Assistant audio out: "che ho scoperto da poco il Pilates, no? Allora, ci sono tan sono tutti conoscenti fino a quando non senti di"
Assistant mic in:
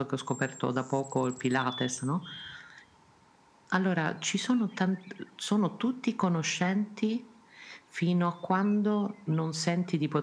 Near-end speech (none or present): none